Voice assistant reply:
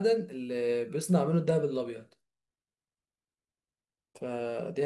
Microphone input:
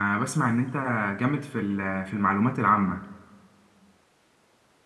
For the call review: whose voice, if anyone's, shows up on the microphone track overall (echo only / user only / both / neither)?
user only